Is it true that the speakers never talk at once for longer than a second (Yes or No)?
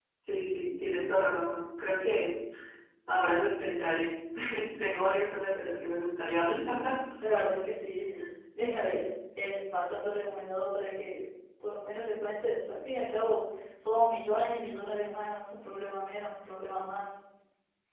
Yes